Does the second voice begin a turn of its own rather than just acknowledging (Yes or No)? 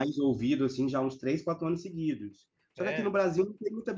No